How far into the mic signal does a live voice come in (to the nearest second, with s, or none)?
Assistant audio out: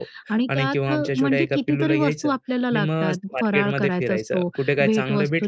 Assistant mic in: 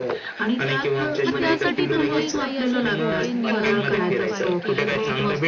1 s